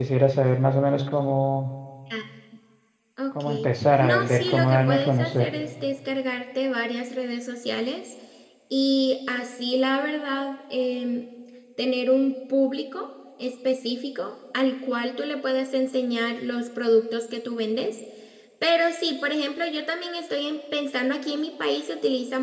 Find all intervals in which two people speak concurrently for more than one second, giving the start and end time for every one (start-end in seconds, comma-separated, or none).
4.0-5.5